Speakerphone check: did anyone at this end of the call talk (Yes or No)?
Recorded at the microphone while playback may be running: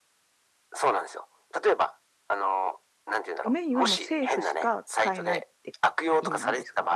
Yes